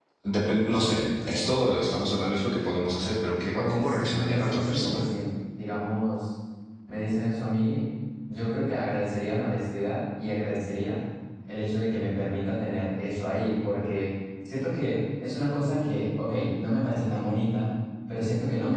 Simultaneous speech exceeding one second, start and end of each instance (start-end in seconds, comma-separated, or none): 3.6-5.0